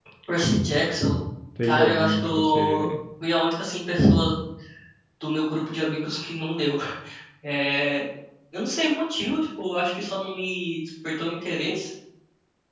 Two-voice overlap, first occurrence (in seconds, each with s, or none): 1.6 s